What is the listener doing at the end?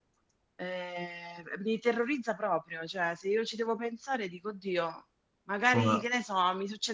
listening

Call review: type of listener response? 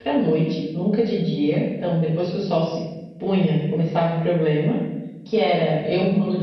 listening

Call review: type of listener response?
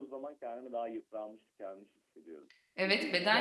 taking over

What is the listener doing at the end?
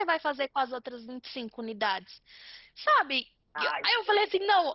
listening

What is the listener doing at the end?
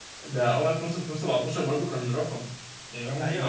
taking over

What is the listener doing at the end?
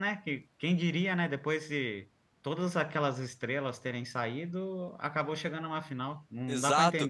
taking over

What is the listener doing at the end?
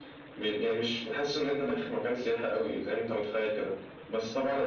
listening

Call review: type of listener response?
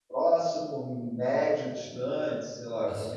taking over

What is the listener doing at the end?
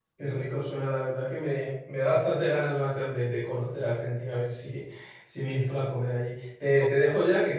listening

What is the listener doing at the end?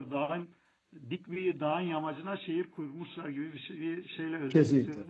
taking over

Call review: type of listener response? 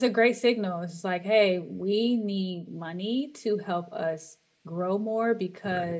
listening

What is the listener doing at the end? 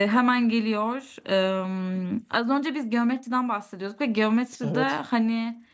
listening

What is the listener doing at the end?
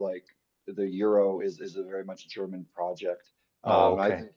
listening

